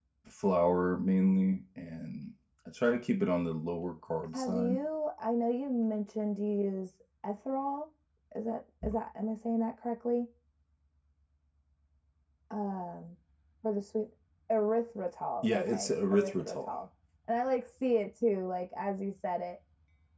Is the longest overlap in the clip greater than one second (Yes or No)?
Yes